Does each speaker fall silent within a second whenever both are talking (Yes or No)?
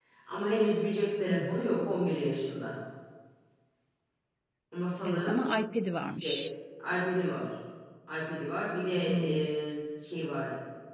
Yes